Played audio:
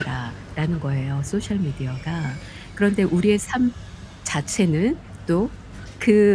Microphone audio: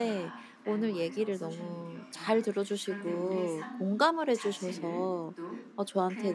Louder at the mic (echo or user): user